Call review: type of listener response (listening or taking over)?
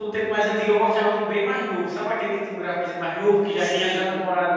listening